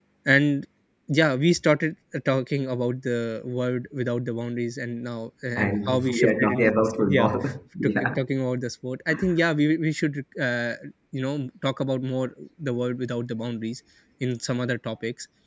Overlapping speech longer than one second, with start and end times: 5.6-7.3

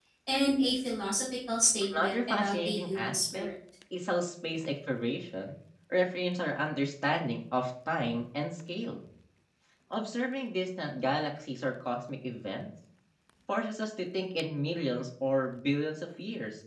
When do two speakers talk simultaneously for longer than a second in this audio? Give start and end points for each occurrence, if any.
2.0-3.5

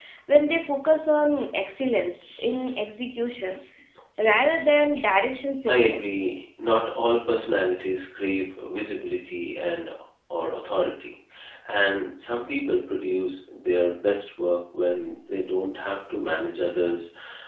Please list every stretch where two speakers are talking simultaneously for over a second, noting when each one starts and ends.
none

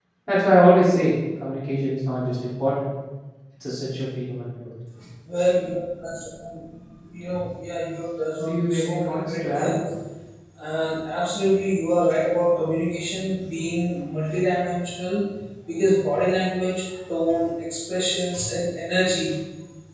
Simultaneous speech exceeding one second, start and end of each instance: 8.4-9.7

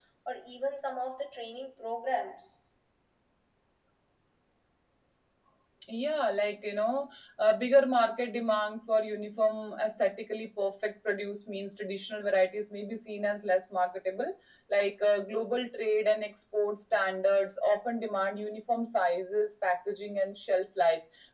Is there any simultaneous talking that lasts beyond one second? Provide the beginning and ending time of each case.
none

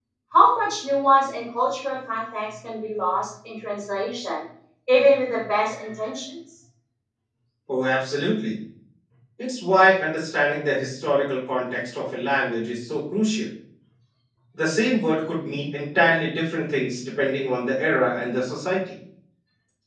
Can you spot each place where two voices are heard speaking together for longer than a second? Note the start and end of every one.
none

